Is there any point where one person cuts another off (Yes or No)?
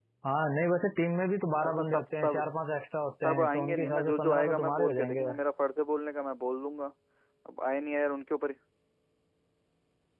Yes